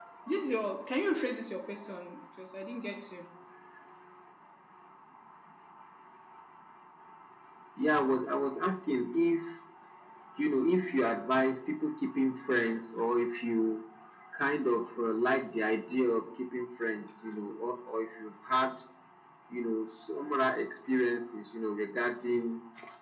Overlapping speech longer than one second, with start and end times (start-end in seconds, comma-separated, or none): none